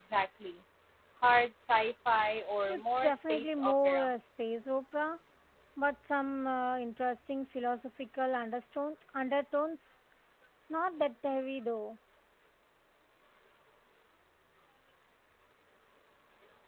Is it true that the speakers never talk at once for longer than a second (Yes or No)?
No